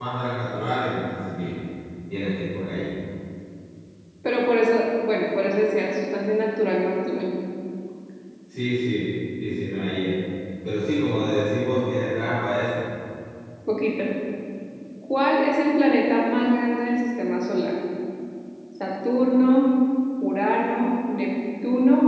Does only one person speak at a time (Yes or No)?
Yes